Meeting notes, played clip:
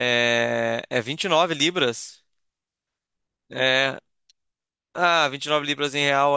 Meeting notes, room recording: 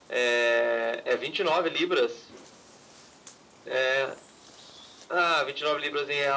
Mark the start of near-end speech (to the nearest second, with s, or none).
none